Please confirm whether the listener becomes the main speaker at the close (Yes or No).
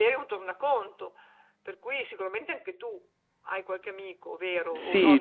Yes